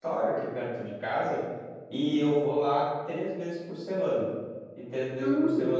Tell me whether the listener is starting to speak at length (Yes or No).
Yes